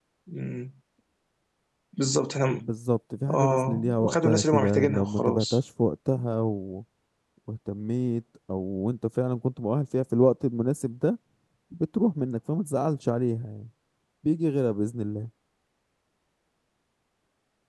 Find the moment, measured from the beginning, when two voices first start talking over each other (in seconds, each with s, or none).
3.3 s